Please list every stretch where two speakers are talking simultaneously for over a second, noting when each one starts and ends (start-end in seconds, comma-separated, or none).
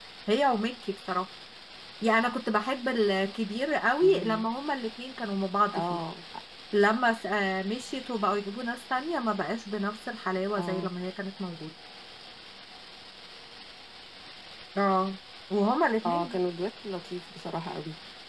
none